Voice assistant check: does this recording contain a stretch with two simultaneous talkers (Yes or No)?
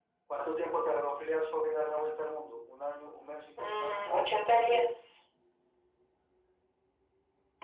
Yes